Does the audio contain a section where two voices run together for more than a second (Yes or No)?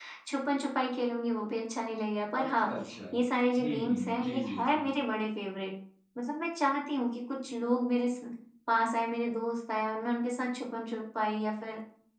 Yes